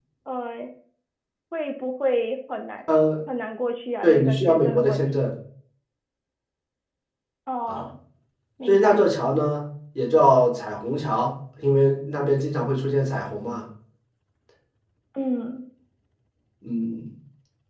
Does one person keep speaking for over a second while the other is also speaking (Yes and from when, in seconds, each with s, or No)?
Yes, from 4.0 s